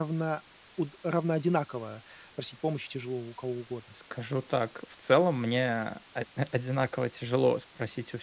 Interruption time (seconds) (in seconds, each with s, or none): none